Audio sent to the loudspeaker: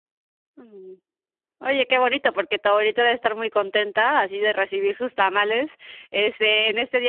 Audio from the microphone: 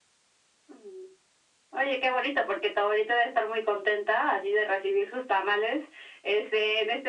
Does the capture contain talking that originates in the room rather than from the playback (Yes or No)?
No